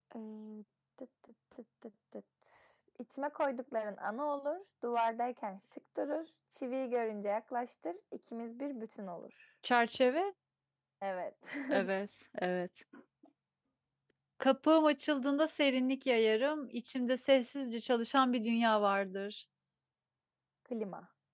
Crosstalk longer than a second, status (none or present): none